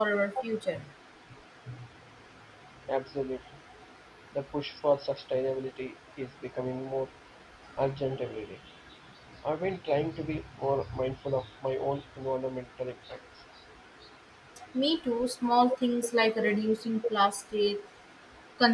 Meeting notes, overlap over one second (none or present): none